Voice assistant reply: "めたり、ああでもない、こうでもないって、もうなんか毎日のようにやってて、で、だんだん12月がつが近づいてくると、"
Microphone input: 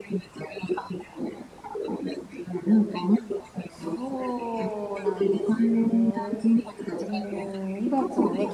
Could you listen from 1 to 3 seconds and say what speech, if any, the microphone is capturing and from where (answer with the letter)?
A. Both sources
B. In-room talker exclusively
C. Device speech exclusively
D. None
C